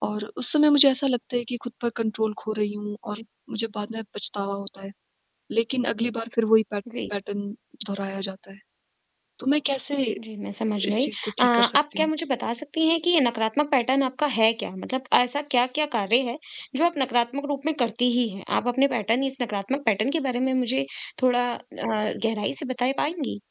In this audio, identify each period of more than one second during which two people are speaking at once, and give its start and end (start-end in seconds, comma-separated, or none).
10.9-12.1